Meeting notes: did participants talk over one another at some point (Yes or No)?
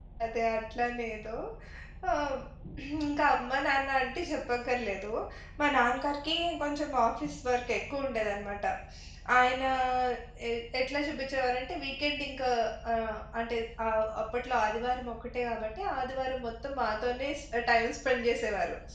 No